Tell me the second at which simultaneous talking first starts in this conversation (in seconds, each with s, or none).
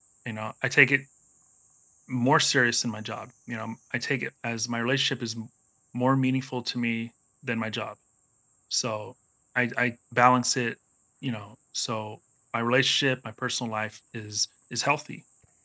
none